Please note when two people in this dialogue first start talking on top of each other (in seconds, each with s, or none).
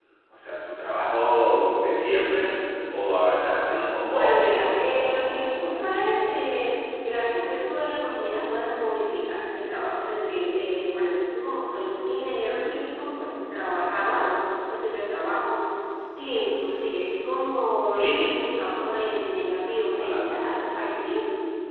4.0 s